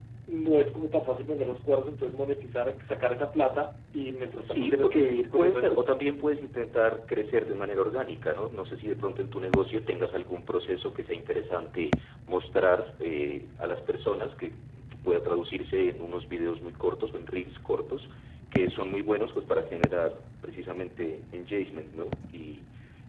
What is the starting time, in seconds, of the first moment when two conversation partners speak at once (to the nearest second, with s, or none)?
4 s